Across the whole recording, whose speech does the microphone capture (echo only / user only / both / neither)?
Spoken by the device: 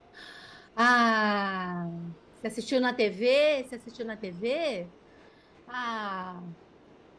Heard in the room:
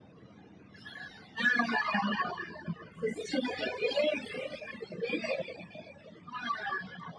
echo only